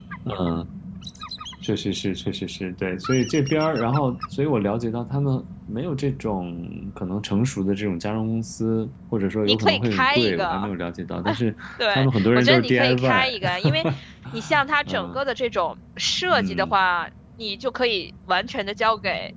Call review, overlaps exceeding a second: present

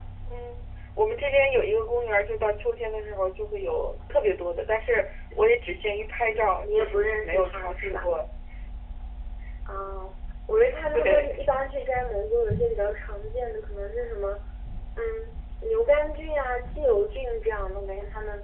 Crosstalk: present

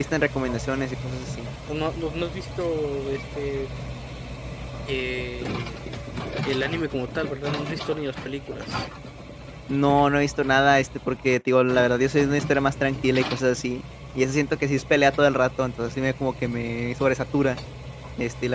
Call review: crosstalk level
none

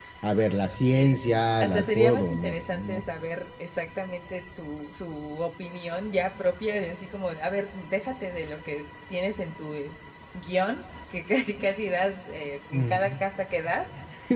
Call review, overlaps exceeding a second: present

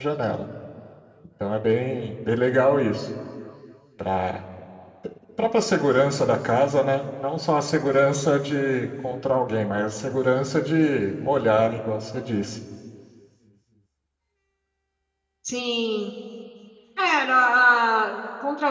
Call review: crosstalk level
none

